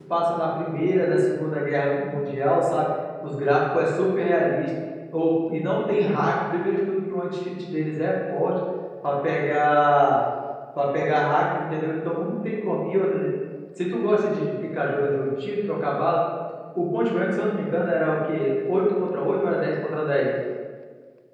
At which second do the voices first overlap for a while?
none

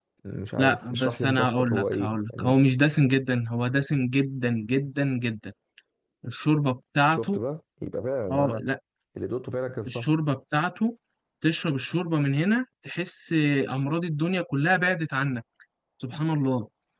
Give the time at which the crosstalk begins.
0.6 s

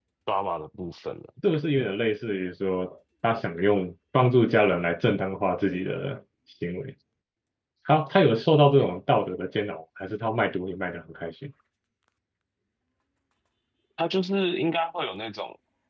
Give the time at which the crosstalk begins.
none

